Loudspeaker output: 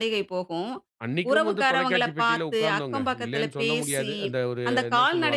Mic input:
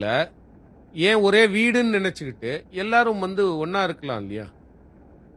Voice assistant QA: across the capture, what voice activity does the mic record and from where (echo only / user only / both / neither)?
user only